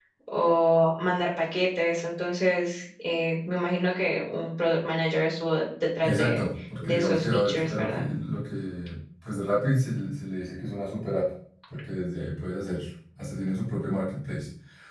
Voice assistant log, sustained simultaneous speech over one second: present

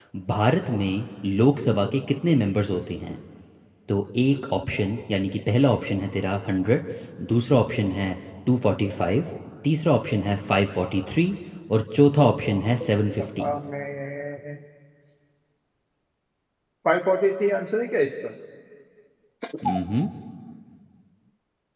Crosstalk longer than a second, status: none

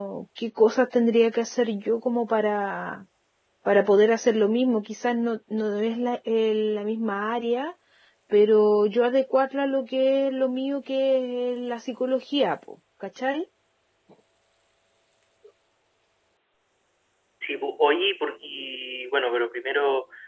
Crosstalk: none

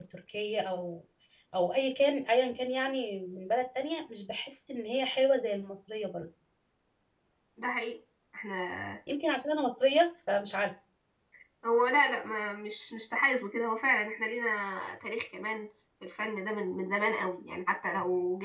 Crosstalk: none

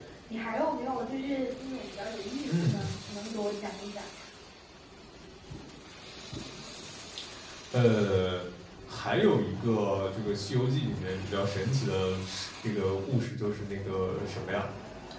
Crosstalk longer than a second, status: none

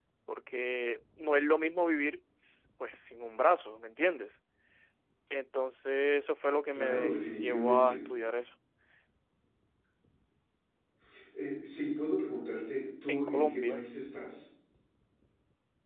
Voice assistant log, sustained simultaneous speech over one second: present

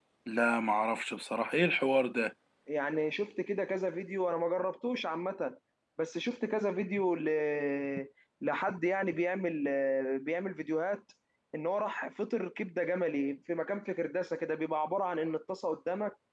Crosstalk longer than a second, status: none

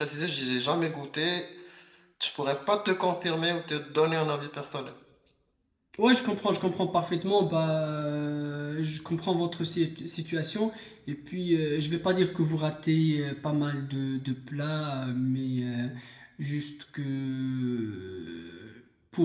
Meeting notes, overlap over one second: none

